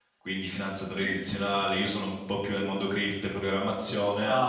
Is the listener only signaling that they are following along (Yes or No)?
Yes